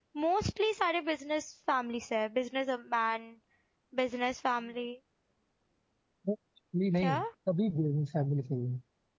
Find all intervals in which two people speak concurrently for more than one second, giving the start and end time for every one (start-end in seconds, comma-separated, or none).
none